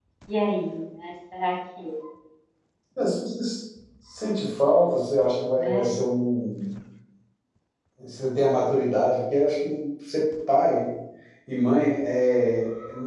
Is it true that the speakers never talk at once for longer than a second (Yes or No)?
Yes